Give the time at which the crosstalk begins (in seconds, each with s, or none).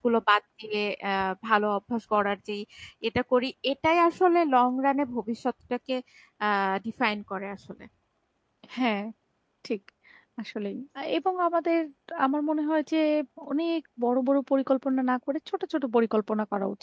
none